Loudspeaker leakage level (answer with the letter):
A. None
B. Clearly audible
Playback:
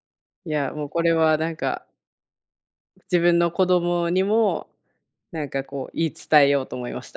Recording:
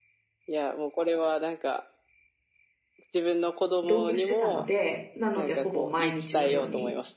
B